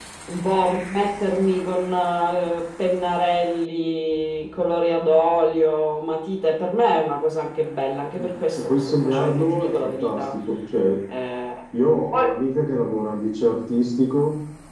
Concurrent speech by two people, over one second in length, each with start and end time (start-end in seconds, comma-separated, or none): 8.2-10.4